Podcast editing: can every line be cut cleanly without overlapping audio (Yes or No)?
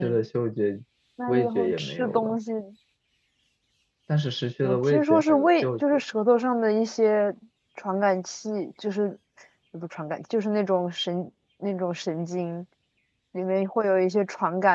No